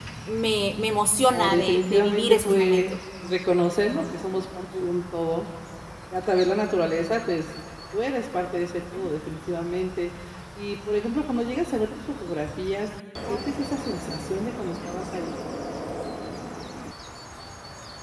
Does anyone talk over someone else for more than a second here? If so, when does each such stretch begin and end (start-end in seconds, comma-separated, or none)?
1.3-3.0